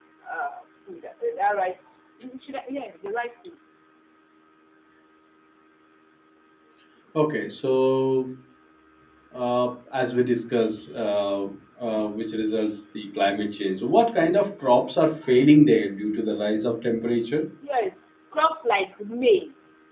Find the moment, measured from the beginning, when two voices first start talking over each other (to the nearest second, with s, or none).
none